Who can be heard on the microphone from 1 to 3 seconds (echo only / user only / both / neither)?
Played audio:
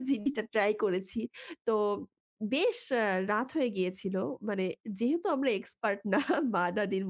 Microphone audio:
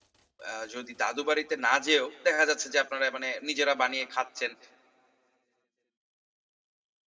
user only